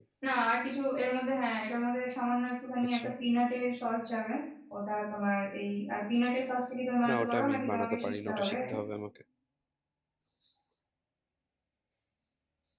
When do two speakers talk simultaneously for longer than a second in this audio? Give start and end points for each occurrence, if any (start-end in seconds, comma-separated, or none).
7.1-8.6